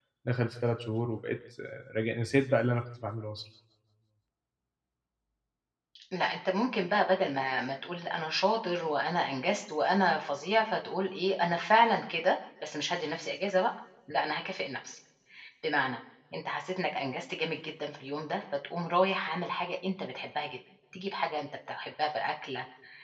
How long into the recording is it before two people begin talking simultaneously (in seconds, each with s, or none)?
none